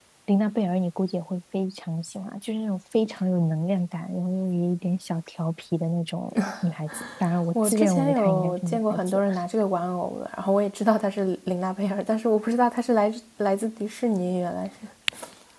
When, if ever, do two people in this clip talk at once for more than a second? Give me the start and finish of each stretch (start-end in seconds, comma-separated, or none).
7.6-9.2